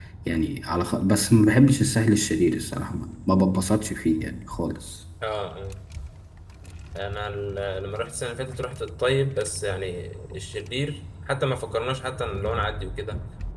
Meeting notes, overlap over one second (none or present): none